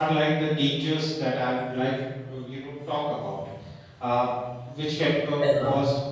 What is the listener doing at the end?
listening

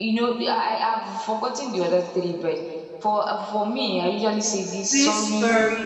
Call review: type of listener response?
taking over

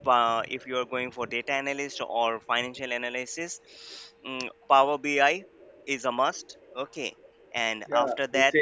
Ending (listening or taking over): taking over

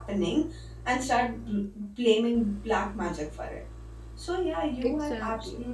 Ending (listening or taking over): listening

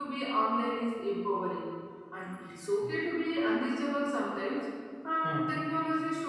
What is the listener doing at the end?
listening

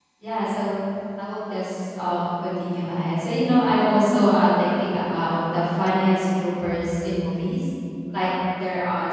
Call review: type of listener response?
listening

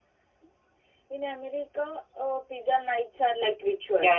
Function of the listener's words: taking over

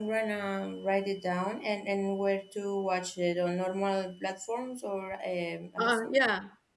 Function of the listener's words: taking over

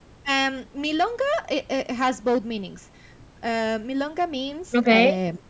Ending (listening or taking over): listening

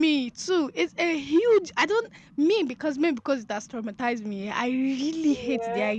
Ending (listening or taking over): listening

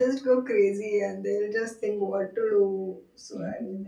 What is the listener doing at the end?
taking over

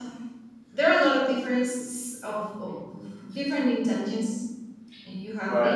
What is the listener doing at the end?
listening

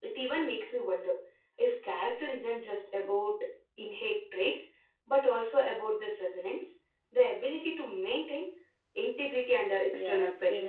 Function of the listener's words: taking over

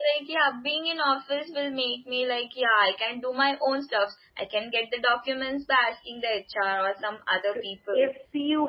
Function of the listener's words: taking over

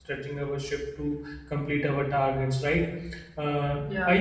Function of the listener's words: listening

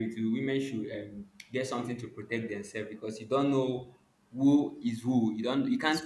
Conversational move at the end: listening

